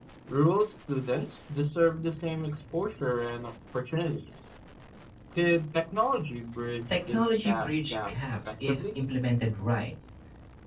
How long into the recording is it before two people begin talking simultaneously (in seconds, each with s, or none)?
6.9 s